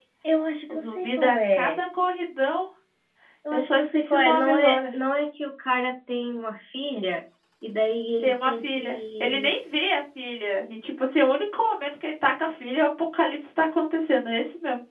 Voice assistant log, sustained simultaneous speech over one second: present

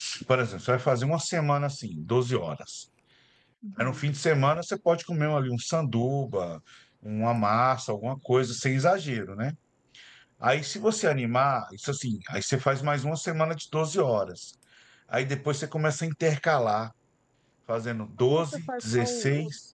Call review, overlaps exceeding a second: present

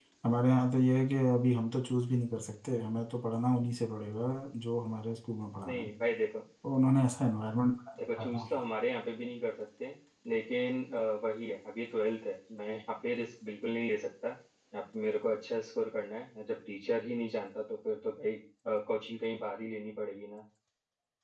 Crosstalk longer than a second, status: none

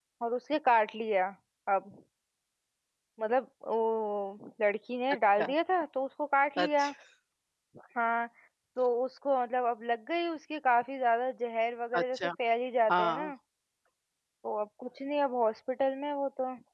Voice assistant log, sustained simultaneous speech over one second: none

